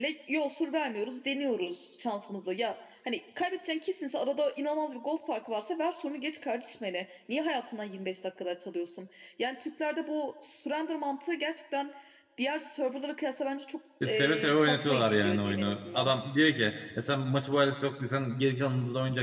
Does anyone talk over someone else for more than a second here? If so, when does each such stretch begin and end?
14.0-16.1

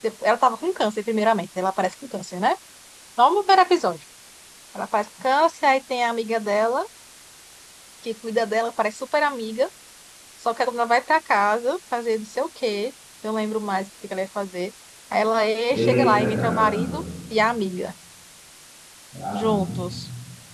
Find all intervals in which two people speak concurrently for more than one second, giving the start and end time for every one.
15.7-17.0

